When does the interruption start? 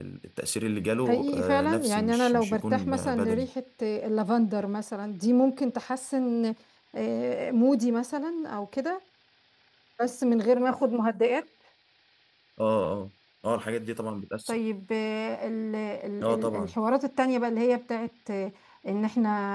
1.1 s

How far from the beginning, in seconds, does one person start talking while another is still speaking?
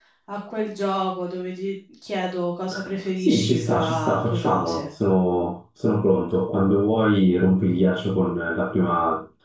3.2 s

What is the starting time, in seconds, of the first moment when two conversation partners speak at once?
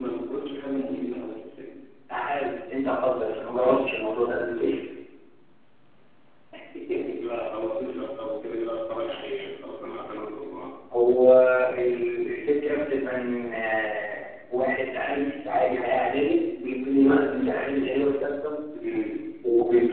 none

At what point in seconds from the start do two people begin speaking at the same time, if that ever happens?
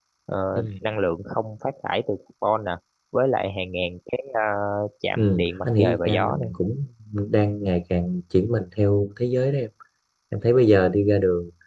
5.2 s

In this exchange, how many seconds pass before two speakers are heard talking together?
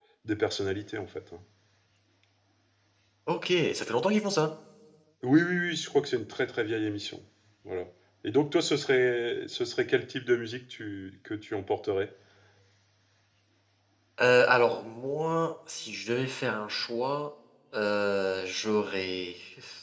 none

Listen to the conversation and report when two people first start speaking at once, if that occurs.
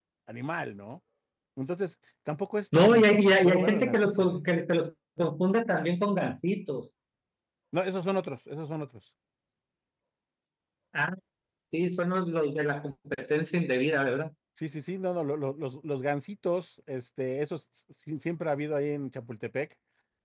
2.7 s

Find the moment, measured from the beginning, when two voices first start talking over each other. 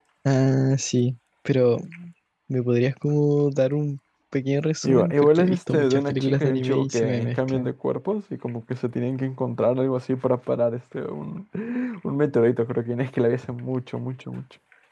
4.8 s

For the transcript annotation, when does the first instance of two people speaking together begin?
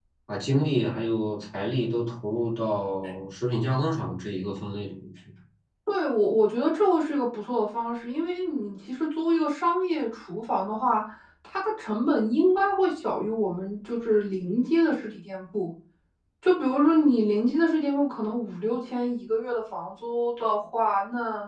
none

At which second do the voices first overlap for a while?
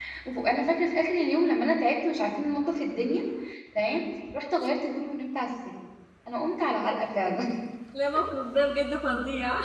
none

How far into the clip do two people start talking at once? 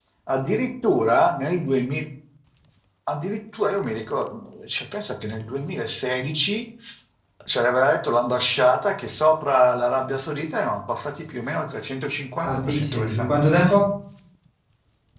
12.4 s

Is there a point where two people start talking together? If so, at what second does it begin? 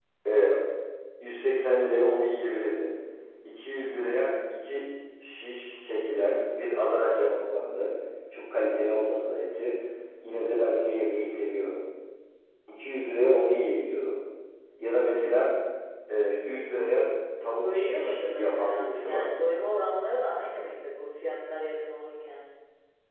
17.5 s

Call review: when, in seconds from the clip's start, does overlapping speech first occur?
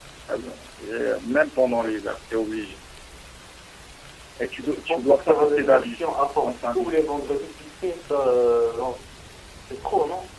4.6 s

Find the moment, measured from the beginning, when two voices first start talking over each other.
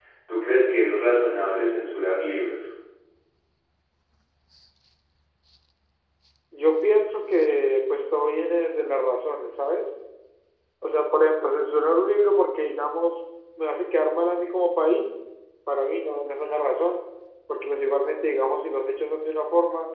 none

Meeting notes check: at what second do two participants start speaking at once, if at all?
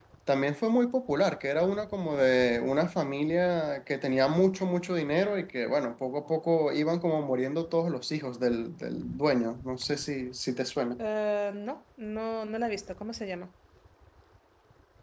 none

